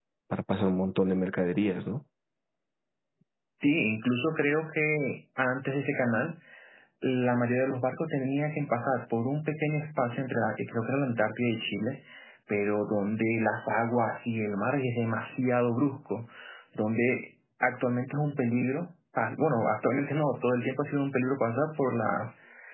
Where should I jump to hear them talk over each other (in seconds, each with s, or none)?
none